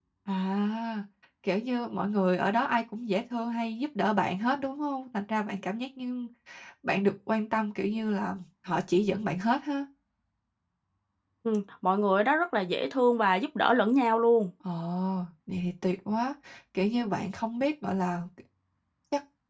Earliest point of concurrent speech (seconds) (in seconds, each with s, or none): none